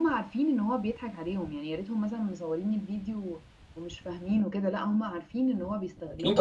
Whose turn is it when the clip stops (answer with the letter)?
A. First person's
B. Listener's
B